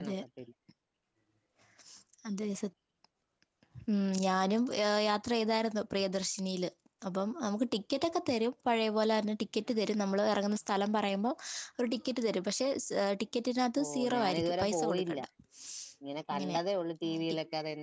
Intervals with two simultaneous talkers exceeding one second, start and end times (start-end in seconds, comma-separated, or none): 13.8-15.2